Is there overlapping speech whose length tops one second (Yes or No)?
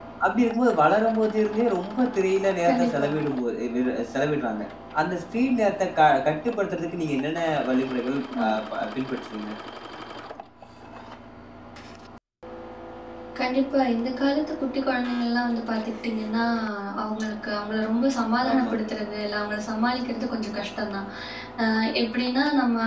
No